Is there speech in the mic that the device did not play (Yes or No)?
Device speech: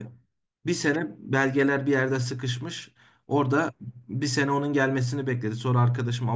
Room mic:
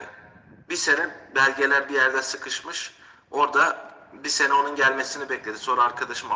No